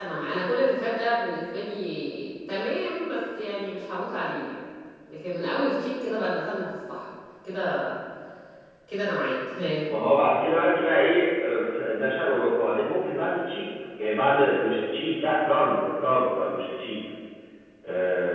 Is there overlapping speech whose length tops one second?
No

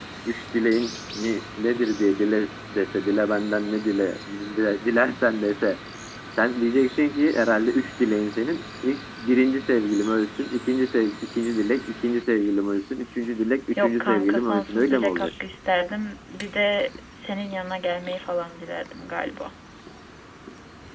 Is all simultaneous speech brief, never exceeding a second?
No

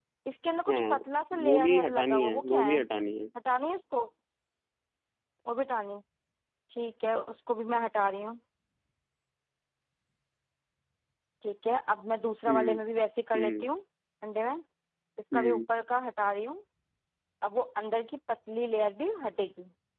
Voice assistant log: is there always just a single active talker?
No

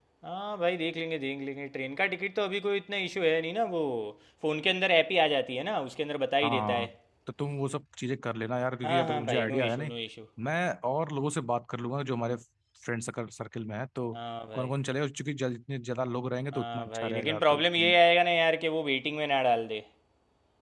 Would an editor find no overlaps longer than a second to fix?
No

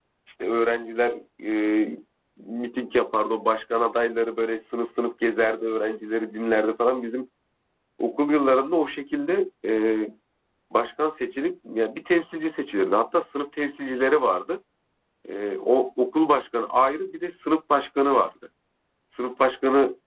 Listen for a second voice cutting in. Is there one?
No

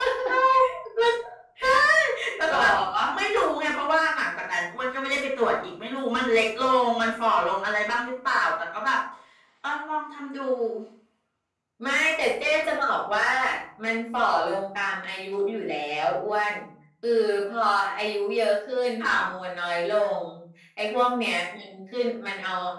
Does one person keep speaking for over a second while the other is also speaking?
No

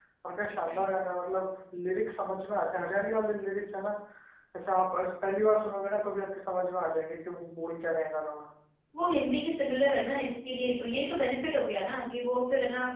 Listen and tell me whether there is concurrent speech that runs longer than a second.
No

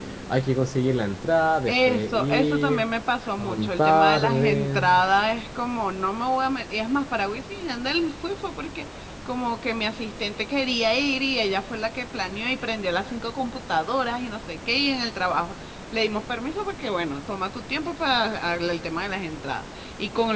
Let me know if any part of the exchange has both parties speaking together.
Yes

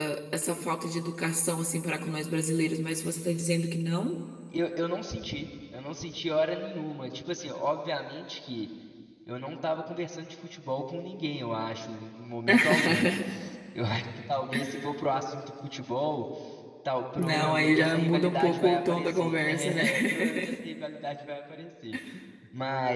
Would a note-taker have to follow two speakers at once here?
Yes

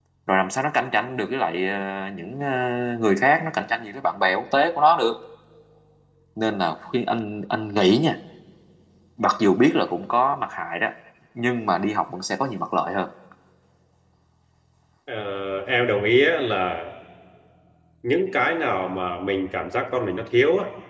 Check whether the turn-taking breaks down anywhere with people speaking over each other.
No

